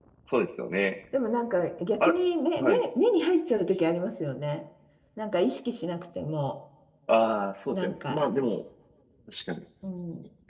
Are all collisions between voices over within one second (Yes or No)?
Yes